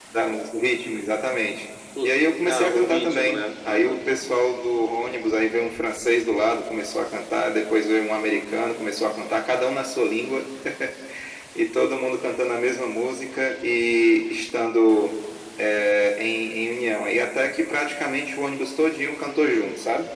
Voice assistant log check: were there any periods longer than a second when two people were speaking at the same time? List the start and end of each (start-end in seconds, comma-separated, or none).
2.4-3.9